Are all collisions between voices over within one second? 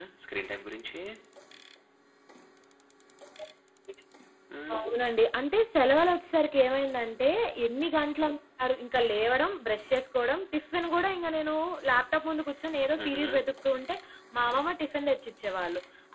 Yes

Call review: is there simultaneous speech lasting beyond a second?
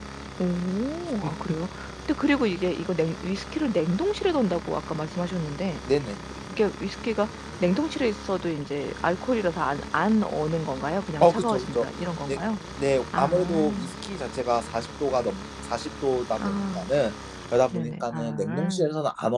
Yes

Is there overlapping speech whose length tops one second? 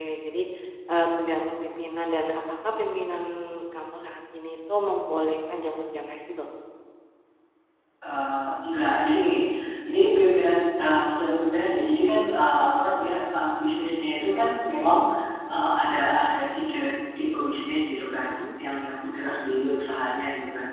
No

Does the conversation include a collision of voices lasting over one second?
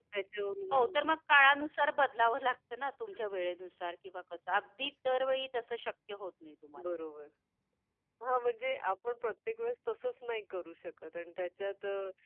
No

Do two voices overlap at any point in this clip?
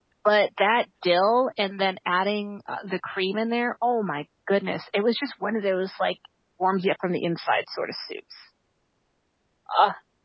No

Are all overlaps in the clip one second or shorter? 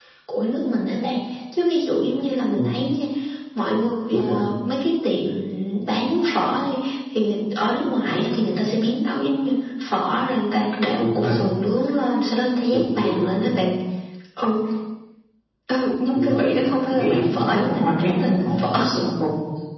No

